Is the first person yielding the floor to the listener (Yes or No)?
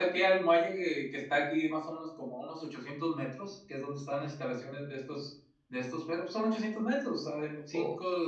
No